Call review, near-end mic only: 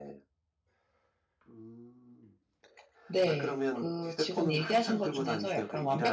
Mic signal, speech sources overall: both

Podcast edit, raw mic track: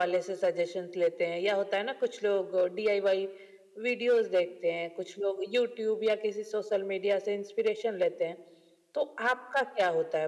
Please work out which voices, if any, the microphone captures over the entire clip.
echo only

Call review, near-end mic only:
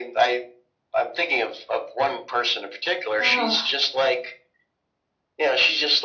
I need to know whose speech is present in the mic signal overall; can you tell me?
both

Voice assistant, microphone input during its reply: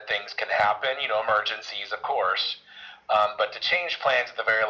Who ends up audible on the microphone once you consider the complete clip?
echo only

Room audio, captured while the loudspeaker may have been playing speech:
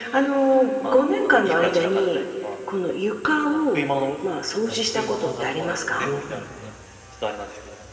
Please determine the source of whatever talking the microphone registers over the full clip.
both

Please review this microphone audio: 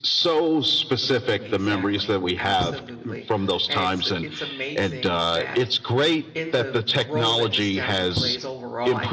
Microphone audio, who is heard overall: both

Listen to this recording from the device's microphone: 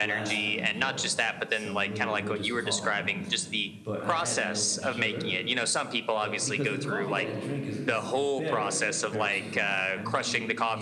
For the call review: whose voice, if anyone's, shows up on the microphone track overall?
both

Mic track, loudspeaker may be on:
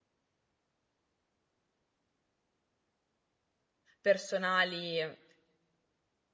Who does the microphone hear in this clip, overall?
user only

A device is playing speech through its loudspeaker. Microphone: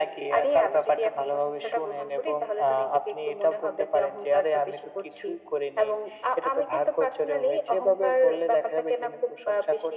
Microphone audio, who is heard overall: echo only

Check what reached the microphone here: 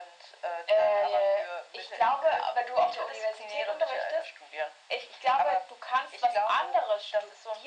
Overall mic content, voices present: echo only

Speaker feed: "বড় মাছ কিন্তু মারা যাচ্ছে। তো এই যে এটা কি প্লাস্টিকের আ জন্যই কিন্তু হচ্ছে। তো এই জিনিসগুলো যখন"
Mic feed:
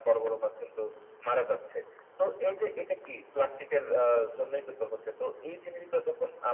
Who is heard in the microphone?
echo only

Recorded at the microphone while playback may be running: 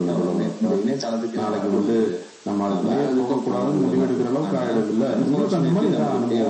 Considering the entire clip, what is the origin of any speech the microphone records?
echo only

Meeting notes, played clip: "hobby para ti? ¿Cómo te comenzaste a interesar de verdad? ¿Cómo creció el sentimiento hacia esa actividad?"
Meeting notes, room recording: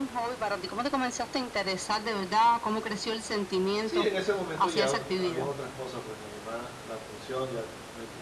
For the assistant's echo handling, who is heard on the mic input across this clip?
both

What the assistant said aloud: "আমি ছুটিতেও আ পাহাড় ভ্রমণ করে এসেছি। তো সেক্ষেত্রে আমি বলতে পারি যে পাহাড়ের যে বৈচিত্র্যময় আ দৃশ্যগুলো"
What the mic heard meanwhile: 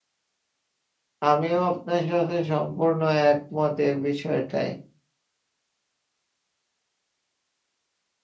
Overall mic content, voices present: user only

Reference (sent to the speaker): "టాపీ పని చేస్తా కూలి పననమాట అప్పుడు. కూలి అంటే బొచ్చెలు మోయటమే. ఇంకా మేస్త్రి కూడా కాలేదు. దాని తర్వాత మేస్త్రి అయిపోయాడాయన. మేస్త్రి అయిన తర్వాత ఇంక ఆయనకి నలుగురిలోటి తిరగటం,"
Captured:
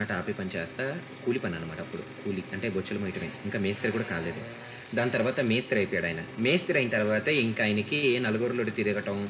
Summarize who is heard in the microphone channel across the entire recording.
echo only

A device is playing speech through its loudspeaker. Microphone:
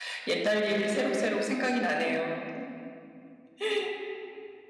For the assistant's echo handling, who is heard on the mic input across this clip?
user only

